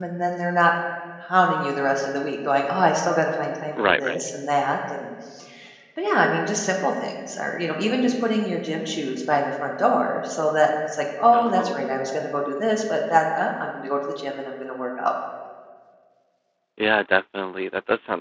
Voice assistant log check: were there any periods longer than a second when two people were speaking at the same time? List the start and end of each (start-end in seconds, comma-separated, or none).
none